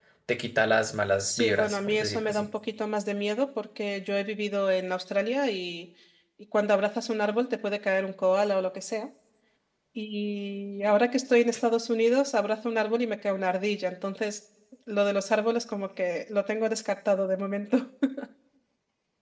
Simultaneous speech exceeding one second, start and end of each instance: 1.2-2.5

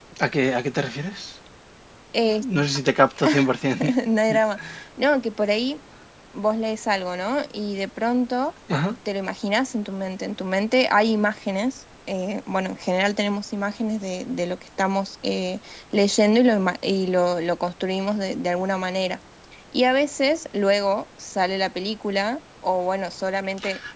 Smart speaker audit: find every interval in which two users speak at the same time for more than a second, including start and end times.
none

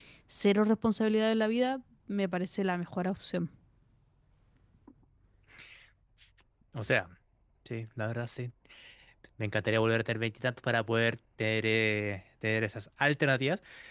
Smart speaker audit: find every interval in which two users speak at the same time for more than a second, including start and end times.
none

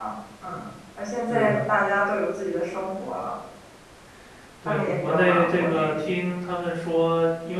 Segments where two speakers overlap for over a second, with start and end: 4.7-5.9

